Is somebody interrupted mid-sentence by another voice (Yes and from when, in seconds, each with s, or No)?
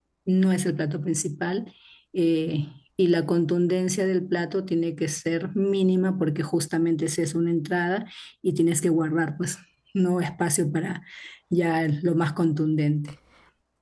No